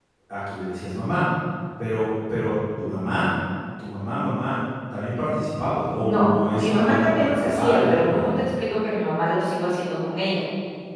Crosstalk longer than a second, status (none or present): present